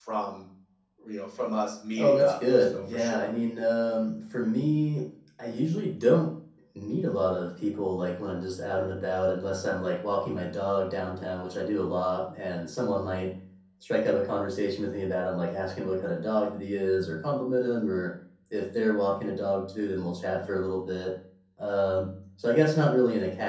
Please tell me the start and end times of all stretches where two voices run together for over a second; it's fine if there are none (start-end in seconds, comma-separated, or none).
2.0-3.3